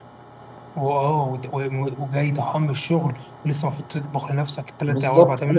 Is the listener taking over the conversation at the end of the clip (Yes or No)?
Yes